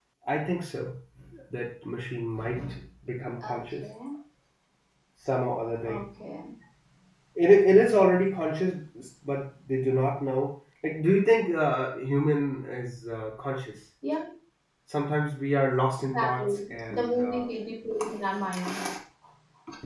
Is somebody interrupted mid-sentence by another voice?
Yes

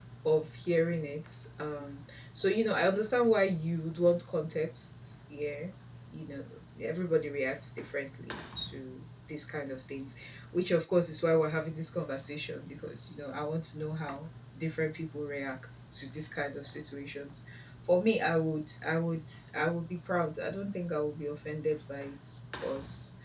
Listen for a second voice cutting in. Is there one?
No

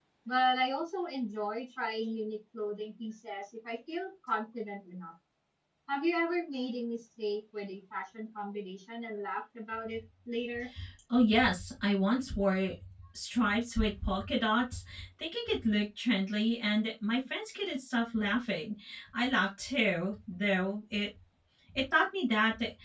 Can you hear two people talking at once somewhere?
No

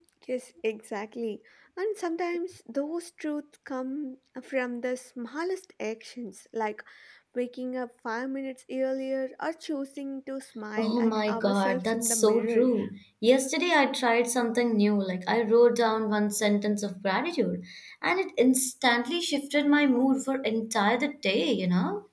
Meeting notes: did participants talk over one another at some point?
Yes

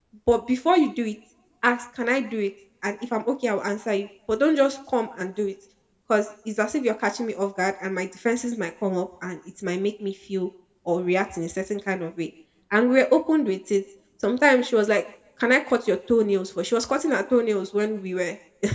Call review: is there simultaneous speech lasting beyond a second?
No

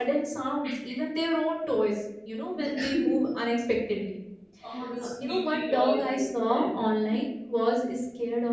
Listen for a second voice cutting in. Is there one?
Yes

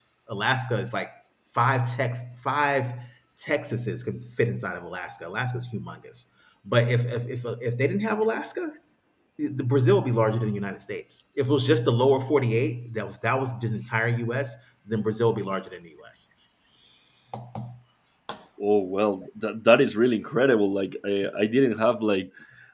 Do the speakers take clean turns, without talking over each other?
Yes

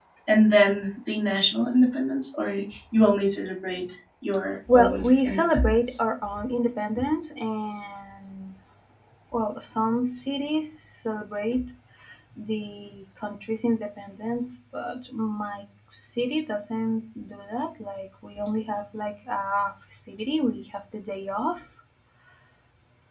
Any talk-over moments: Yes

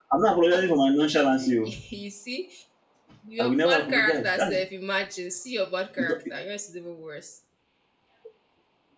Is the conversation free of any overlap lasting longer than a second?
No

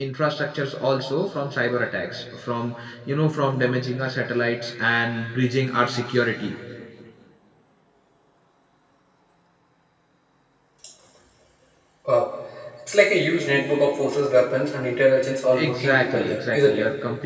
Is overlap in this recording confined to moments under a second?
No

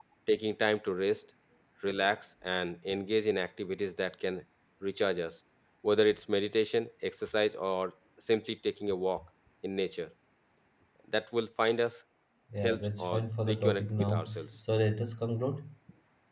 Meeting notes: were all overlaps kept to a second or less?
No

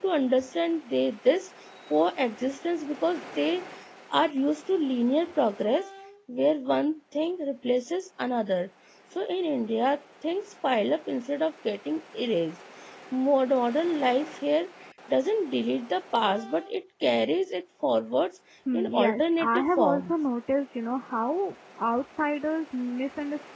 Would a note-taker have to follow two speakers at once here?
Yes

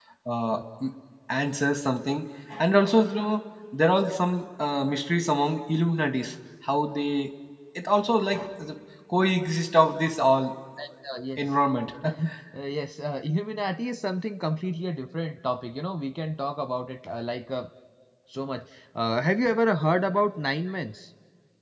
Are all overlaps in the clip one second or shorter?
Yes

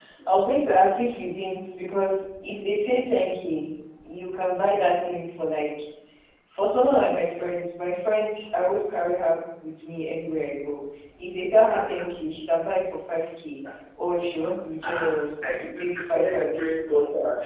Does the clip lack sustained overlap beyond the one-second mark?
No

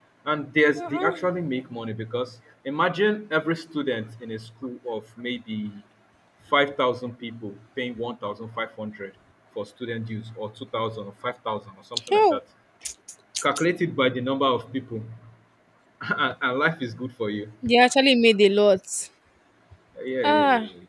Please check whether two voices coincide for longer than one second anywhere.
No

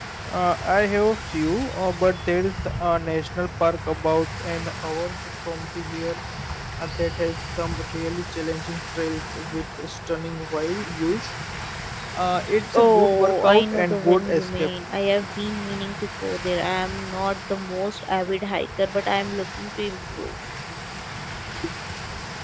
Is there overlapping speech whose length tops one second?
Yes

